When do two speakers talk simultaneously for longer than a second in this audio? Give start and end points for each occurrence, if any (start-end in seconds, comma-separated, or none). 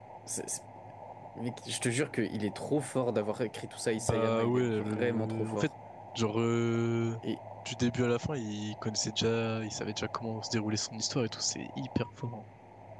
4.0-5.7